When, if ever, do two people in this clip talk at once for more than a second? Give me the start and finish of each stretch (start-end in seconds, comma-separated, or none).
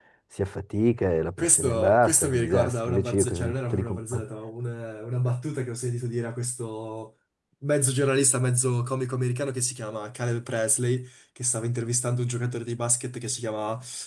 1.4-4.0